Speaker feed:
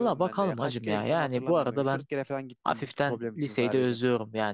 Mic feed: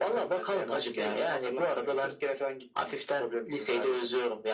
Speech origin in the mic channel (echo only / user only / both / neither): echo only